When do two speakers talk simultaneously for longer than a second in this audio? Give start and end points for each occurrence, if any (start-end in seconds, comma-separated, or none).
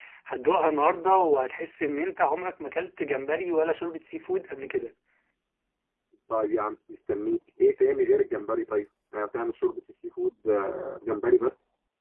none